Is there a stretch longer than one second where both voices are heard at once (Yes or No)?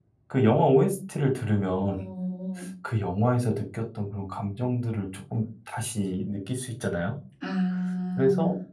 No